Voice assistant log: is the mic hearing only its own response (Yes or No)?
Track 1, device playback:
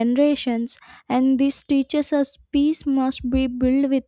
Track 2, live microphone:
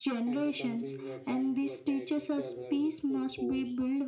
No